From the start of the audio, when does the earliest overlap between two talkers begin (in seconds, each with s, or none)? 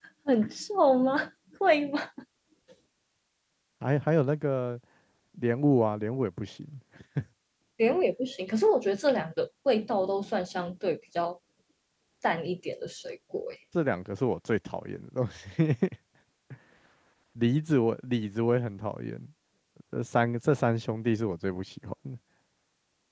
none